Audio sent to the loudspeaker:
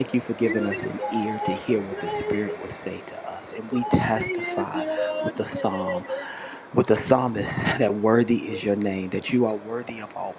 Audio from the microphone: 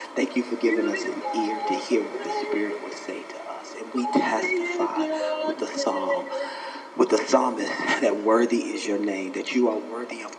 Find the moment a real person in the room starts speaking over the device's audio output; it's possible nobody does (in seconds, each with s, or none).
none